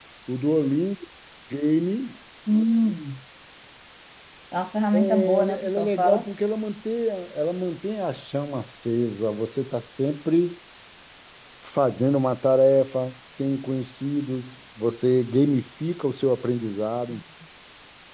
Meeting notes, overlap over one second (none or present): present